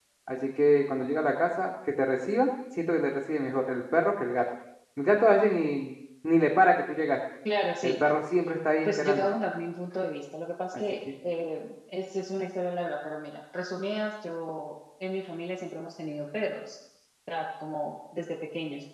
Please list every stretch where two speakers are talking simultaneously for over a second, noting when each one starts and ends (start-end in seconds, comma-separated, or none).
none